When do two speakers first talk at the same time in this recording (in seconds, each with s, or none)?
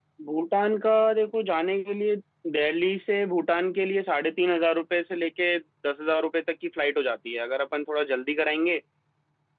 none